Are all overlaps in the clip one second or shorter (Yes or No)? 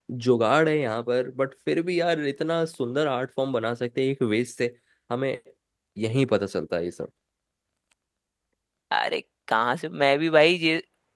Yes